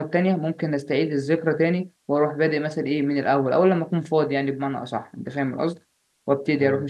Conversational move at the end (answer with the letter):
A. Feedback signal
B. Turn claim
A